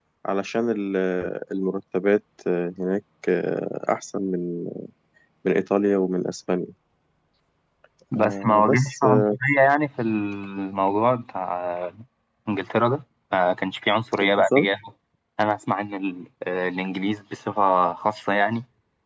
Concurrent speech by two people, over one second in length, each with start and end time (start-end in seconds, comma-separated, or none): 8.2-9.4